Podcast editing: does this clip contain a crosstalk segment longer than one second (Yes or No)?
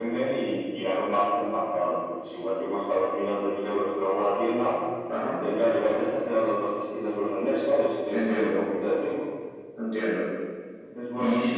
No